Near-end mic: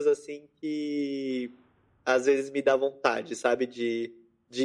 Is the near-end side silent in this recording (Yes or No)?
Yes